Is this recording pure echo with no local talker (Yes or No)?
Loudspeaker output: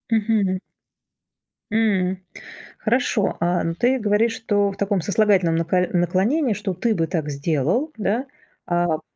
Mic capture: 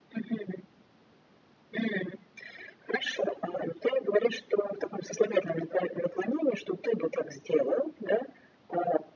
Yes